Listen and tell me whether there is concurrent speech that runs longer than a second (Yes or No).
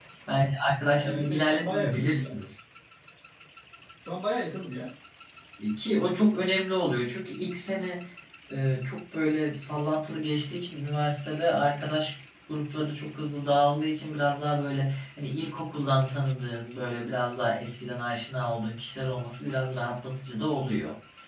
Yes